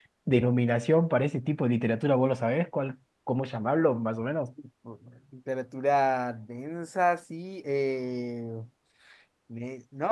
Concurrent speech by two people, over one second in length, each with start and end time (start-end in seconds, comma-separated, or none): none